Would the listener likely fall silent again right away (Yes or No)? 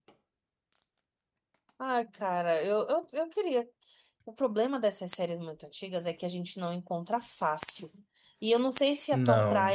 Yes